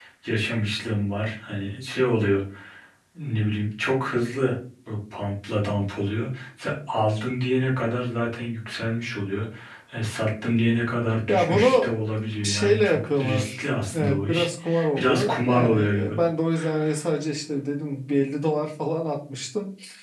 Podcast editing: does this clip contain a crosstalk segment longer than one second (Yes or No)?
Yes